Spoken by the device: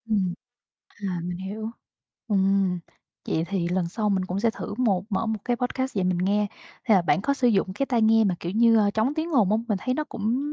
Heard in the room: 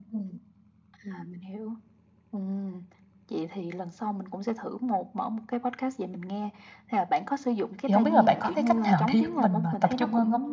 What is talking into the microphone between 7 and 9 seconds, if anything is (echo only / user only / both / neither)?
both